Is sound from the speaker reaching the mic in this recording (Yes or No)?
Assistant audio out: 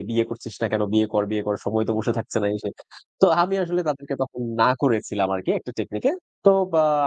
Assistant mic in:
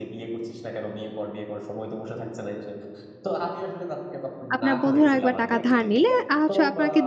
Yes